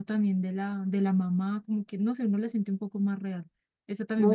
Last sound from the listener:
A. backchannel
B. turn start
B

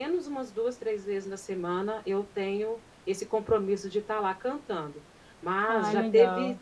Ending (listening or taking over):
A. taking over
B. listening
B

